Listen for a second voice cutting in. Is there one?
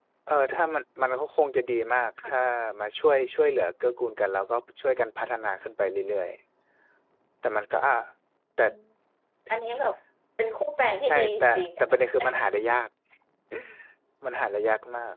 Yes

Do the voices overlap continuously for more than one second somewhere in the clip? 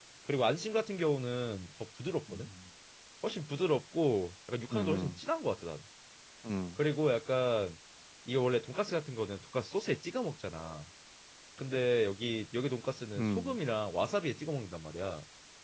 No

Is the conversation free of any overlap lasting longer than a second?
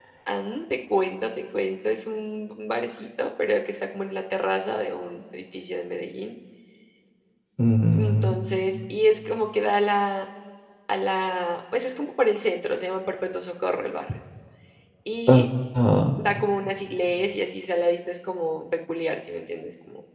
Yes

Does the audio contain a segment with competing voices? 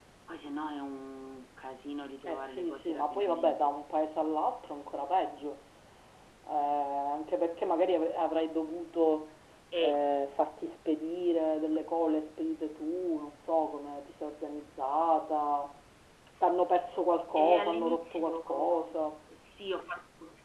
Yes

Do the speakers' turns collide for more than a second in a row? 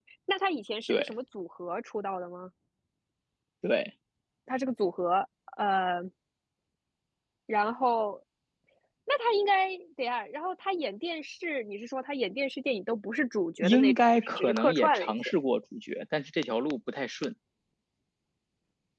Yes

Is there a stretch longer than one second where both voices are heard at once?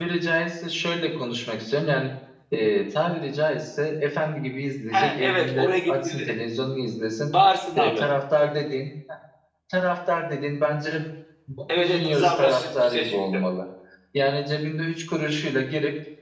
Yes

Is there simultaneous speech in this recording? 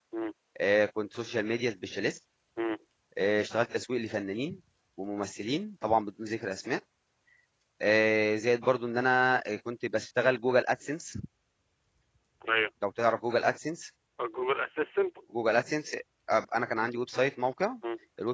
No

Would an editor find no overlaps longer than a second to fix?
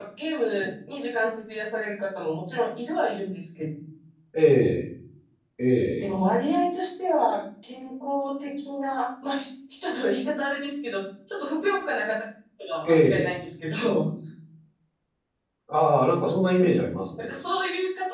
Yes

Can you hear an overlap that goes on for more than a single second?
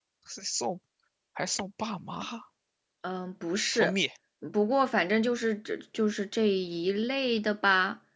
No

